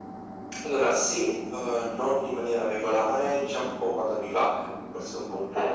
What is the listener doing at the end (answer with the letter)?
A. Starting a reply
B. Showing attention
A